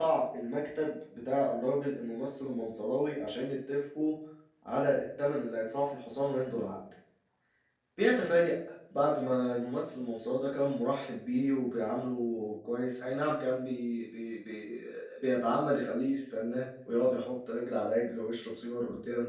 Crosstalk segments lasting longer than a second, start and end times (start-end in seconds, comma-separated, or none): none